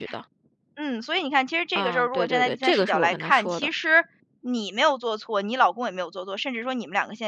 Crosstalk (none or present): present